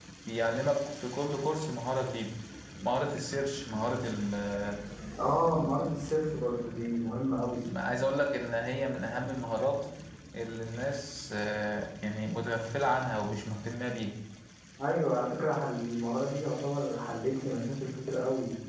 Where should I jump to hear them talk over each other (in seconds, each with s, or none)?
none